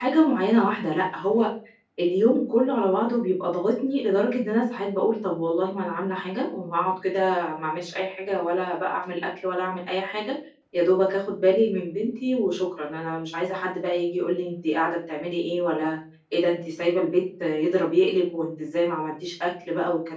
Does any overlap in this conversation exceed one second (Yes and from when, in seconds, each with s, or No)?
No